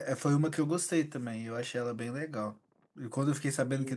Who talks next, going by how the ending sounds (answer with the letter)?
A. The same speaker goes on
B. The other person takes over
A